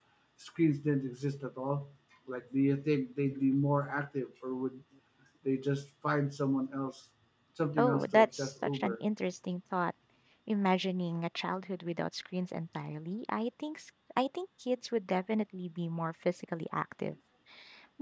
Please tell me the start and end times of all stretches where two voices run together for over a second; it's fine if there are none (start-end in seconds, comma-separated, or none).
7.8-9.0